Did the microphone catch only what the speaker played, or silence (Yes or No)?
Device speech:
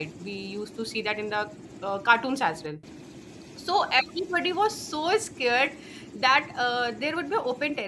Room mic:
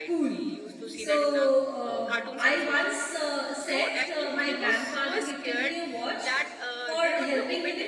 No